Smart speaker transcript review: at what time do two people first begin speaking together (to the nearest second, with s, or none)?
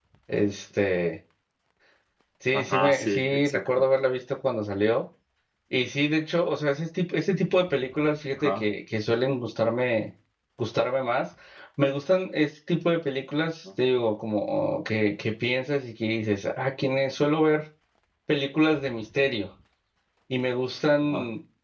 3 s